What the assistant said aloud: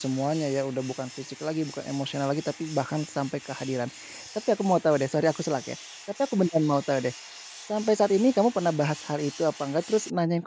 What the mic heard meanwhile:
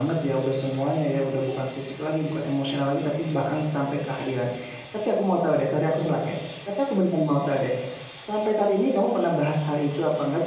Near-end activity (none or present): none